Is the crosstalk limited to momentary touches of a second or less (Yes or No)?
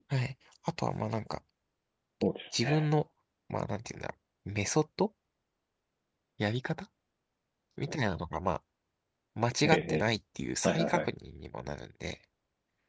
Yes